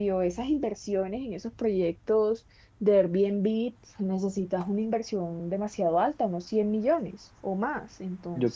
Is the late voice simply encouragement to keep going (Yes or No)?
No